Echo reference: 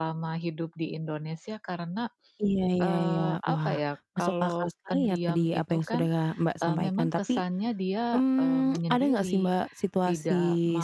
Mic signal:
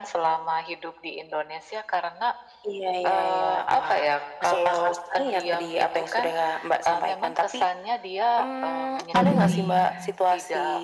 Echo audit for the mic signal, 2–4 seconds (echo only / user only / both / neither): echo only